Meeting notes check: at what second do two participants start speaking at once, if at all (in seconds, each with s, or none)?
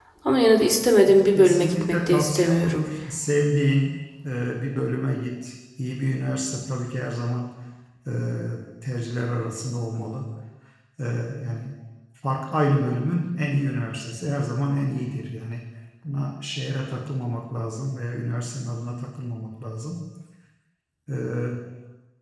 1.3 s